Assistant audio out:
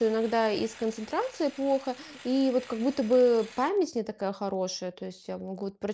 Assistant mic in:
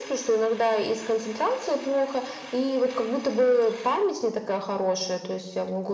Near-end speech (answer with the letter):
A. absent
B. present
A